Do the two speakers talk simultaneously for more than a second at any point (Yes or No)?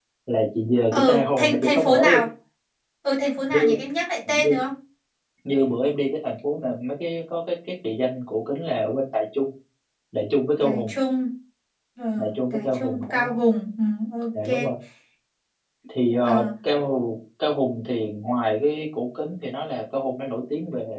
Yes